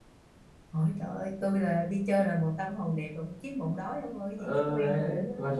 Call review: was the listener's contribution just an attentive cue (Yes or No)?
No